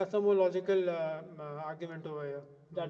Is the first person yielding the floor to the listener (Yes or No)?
Yes